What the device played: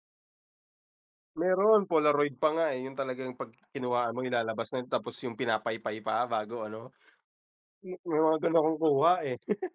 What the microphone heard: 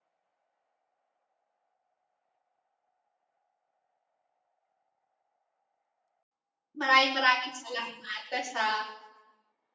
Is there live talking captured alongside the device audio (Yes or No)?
Yes